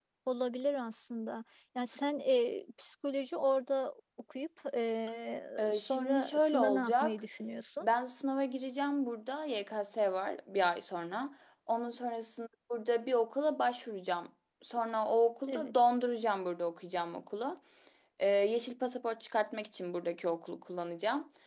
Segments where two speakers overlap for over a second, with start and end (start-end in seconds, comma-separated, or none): 5.6-7.1